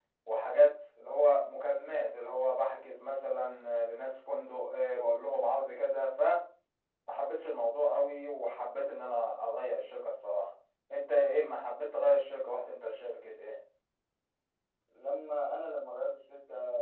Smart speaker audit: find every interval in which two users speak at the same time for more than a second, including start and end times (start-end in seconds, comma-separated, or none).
none